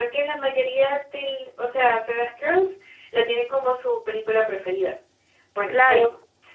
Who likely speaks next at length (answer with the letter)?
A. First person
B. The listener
B